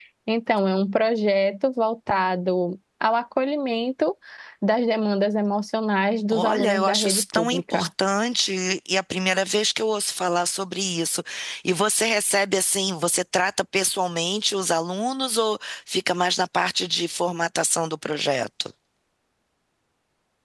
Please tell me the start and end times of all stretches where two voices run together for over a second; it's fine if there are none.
6.3-7.9

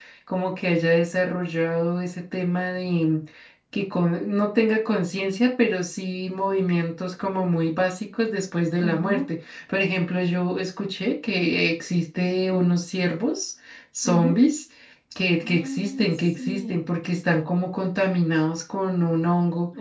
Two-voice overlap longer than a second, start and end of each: 15.4-16.8

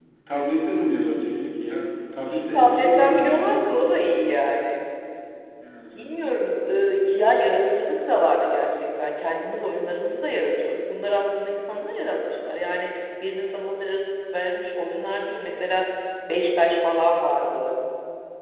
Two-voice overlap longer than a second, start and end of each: 2.3-3.6

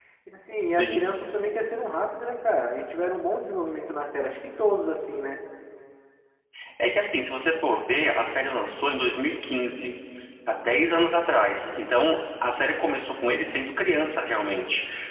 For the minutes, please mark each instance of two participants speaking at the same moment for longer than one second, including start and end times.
none

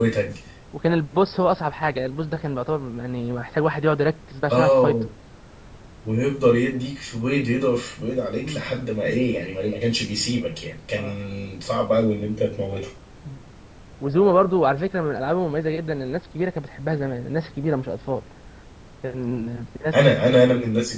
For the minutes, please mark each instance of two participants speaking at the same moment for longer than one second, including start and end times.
none

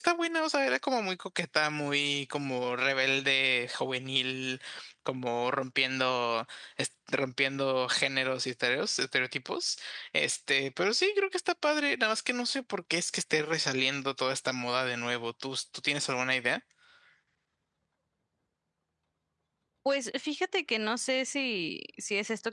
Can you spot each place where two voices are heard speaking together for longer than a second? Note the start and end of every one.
none

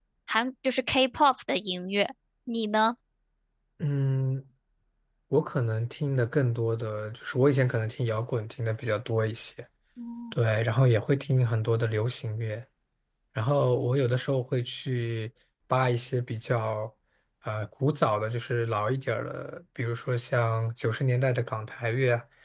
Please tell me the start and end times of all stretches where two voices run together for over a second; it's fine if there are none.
none

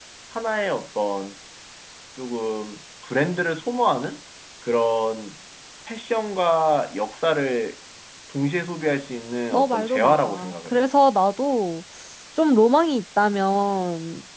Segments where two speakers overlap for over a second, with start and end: 9.5-10.8

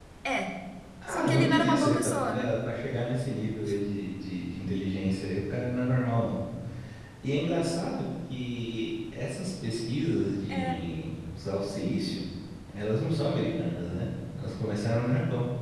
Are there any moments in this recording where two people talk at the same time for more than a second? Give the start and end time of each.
1.1-2.5

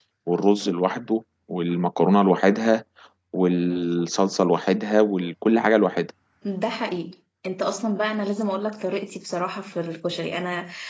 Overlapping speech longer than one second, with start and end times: none

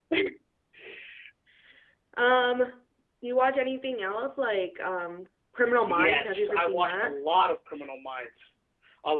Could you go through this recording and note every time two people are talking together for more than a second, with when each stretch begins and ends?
5.9-7.1

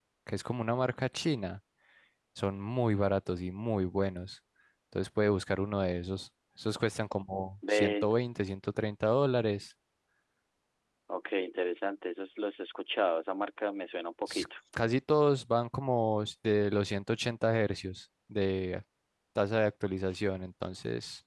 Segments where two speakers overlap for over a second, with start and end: none

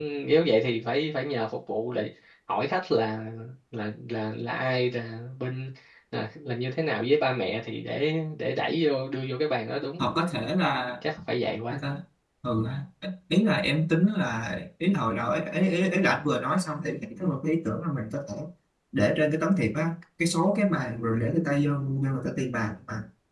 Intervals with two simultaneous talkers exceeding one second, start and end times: none

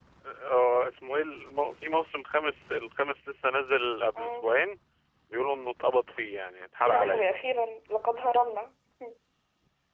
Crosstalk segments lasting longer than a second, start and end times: none

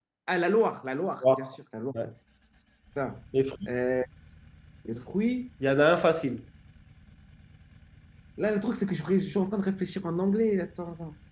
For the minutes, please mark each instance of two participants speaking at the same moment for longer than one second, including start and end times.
none

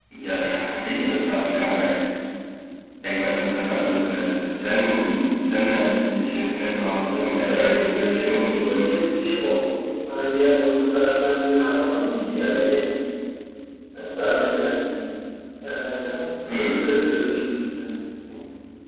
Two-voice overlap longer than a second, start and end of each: 7.0-8.9

